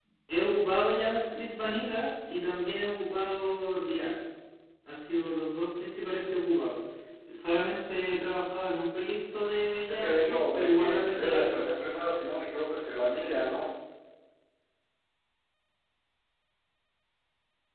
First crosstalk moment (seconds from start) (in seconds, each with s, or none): 9.8 s